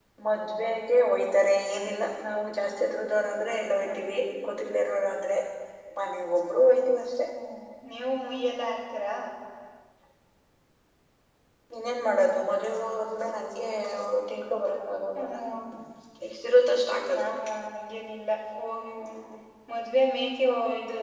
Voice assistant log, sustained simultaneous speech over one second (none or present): none